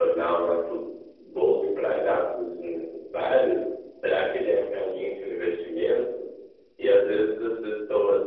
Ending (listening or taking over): listening